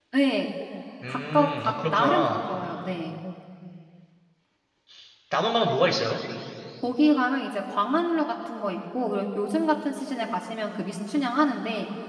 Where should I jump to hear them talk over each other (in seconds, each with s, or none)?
1.1 s